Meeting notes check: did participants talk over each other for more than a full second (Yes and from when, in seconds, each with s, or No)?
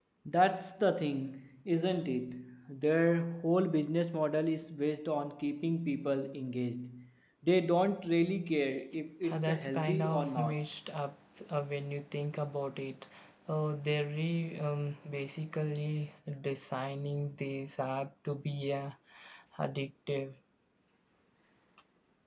Yes, from 9.3 s